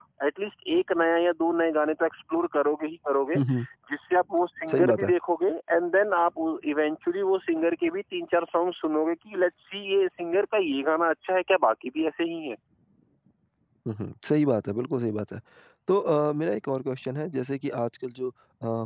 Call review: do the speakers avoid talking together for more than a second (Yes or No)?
Yes